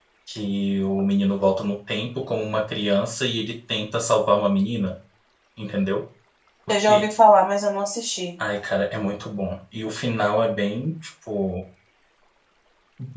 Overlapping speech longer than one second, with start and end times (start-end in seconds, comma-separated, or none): none